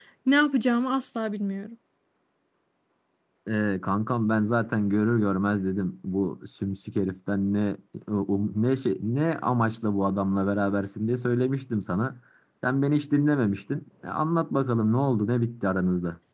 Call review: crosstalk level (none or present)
none